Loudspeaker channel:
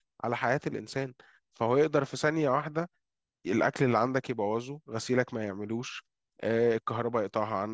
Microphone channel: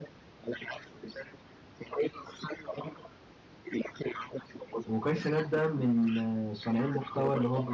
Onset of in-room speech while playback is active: 4.8 s

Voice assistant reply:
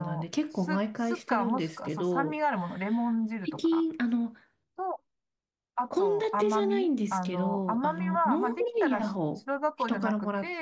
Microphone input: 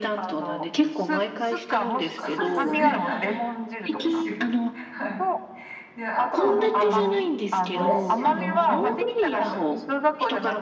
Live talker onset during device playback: 2.2 s

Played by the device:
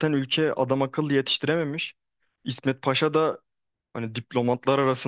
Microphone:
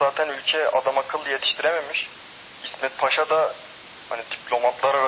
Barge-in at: none

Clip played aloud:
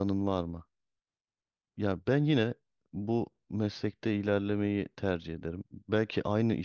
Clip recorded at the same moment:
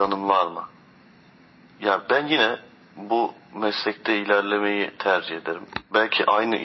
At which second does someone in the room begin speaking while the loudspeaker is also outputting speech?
none

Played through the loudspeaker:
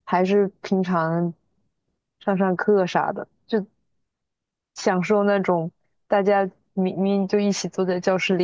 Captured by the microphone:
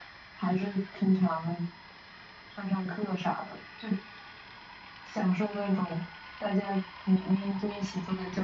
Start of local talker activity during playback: none

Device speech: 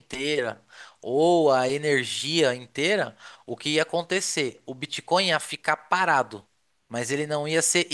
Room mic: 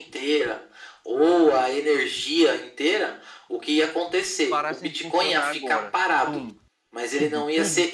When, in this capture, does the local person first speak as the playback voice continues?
4.5 s

